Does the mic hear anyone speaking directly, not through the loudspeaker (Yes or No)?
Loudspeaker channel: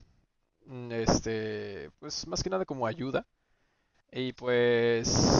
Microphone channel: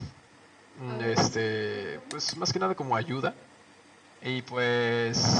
Yes